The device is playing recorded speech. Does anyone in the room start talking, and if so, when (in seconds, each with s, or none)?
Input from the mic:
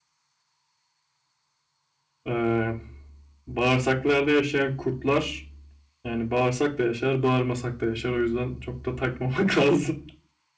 2.3 s